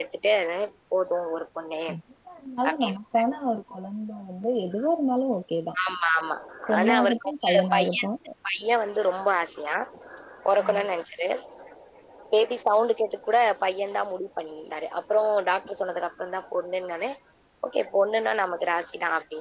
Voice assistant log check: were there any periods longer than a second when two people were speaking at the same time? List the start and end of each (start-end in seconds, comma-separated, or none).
6.8-8.1